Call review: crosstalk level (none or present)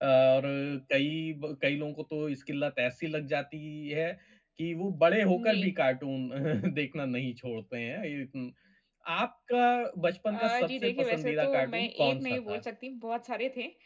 present